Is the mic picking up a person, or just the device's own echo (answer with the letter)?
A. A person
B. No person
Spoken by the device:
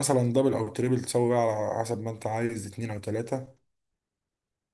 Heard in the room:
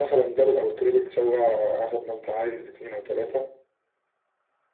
B